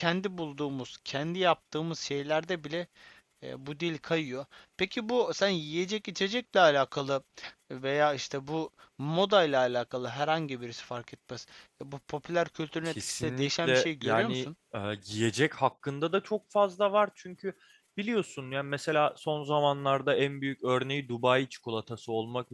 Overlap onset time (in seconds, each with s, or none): 12.8 s